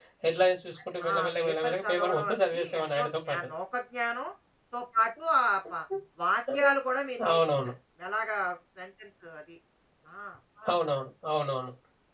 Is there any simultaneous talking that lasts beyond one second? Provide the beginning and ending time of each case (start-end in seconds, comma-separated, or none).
1.1-3.4